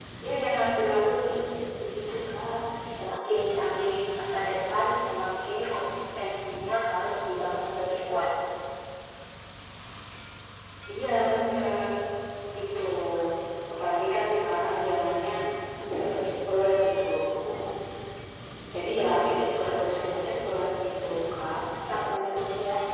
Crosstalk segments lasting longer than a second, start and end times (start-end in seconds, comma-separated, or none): none